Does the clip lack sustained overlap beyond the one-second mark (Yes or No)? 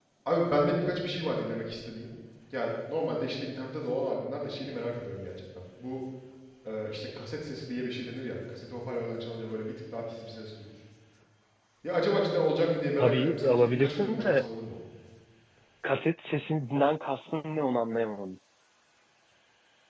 No